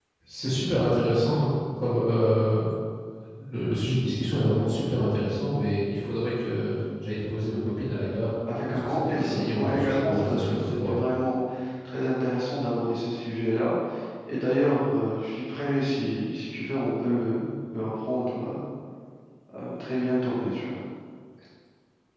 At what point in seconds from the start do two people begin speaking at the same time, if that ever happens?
8.5 s

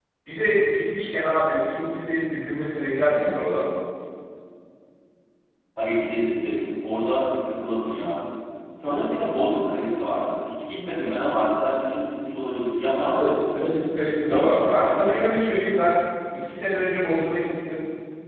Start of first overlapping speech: 13.1 s

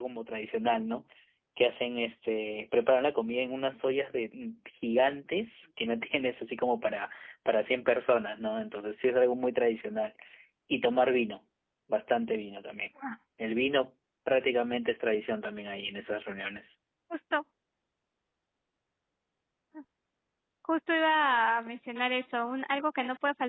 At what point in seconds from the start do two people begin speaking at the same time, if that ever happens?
none

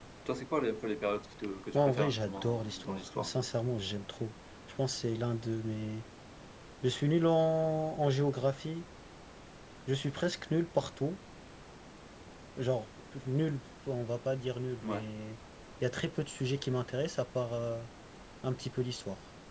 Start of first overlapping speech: 1.7 s

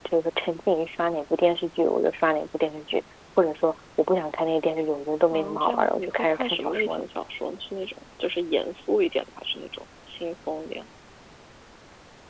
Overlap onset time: 5.3 s

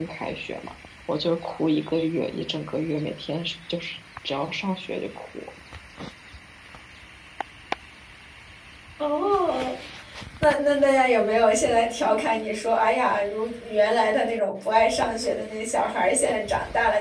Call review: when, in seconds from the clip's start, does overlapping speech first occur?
none

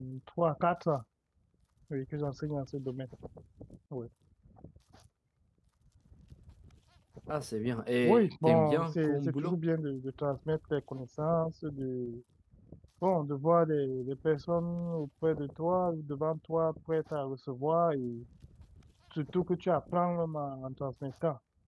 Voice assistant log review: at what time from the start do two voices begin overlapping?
8.0 s

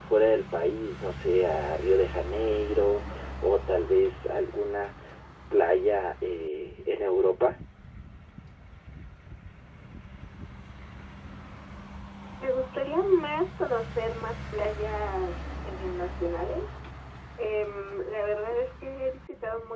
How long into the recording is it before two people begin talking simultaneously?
none

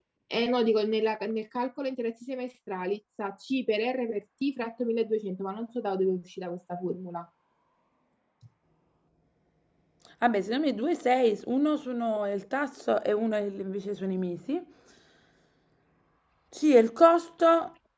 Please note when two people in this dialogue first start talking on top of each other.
none

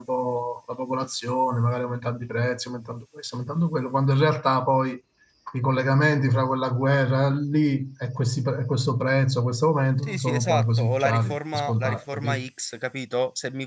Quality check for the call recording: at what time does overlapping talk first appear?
10.0 s

